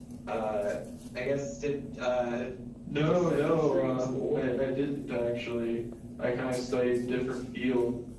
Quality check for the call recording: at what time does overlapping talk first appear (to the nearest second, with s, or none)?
3 s